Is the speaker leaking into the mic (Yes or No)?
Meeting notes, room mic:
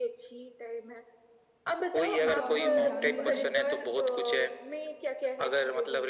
Yes